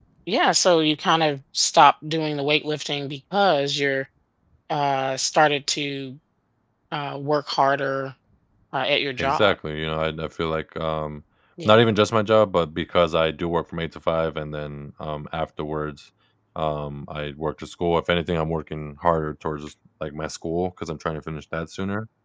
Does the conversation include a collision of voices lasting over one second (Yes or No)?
No